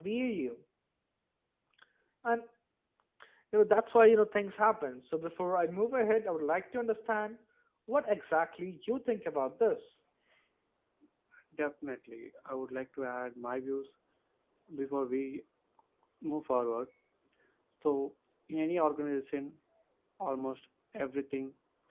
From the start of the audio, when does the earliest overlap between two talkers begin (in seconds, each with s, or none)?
none